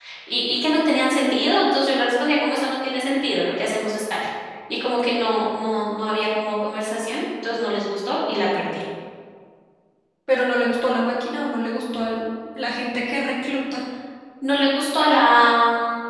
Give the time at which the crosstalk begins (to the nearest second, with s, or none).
none